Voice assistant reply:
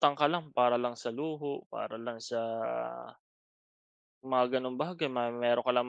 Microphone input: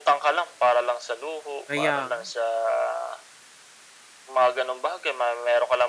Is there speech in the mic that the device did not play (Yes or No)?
Yes